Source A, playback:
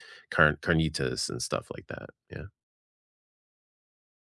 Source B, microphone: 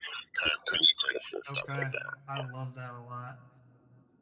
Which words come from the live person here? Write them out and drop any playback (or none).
Okay. I love that a lot.